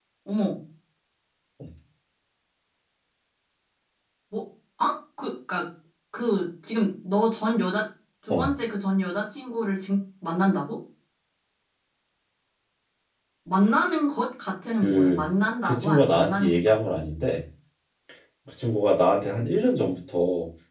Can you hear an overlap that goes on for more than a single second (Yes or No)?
Yes